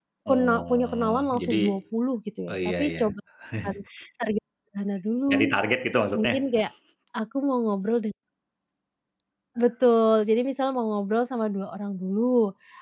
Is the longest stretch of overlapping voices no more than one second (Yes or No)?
No